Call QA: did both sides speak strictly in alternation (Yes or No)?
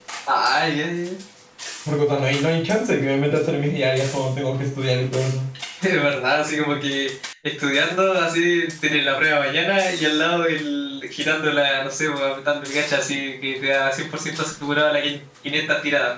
Yes